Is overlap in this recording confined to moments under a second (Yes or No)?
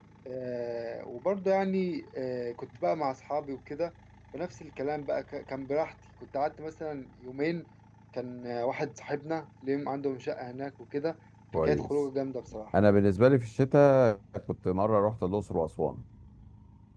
Yes